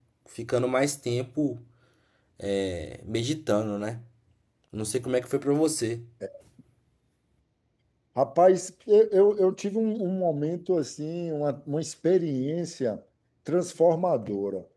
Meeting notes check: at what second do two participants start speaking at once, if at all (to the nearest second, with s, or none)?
none